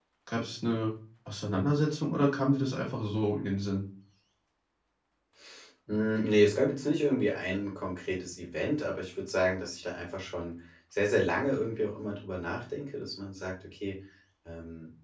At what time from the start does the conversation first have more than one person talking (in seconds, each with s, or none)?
none